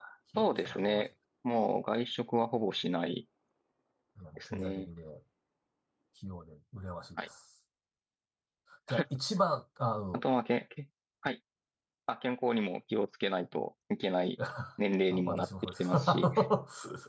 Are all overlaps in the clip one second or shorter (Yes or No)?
No